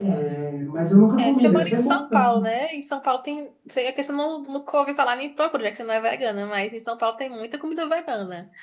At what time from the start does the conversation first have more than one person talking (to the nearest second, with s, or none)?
1 s